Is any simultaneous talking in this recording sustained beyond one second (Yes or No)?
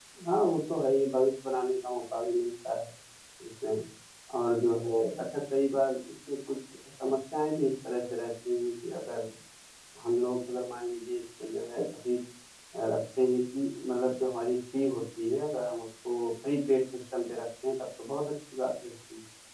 No